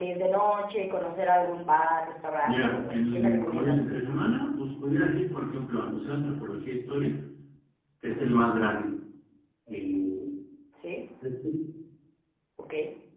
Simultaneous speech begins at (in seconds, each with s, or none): 2.4 s